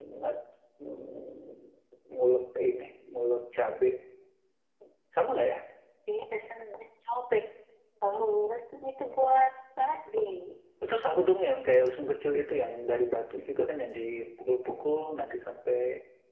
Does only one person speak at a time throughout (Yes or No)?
Yes